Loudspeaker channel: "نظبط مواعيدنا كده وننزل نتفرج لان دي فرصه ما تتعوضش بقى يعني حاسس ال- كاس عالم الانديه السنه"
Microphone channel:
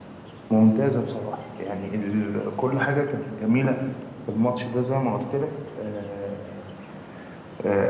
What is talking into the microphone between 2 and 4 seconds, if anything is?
user only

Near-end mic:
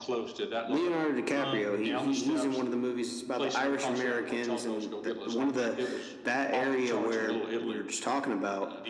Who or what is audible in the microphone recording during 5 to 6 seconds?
echo only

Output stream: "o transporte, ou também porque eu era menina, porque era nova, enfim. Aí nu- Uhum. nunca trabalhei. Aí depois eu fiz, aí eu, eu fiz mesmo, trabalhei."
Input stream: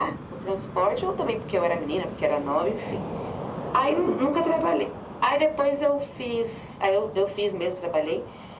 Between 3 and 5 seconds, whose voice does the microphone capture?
echo only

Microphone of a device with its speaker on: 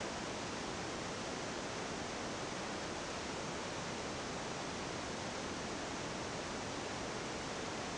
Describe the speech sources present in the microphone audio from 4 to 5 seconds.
neither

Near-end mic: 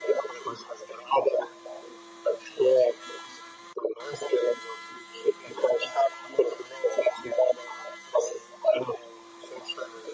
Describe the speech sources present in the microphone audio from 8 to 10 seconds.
echo only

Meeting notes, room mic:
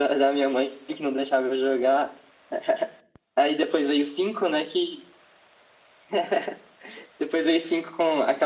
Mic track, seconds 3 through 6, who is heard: echo only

